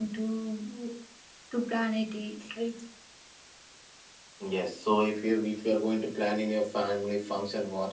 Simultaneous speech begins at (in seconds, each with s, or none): none